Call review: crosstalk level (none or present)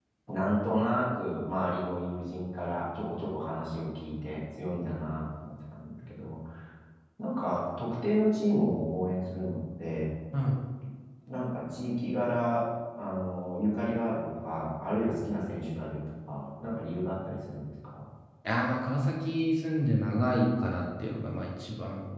none